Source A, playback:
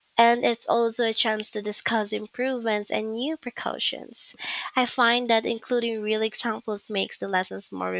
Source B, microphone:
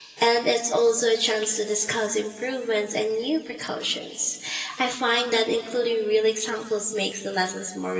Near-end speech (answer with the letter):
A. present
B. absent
B